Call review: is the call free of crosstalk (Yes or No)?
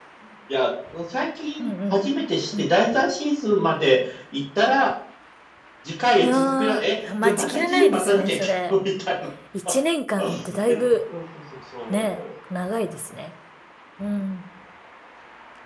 No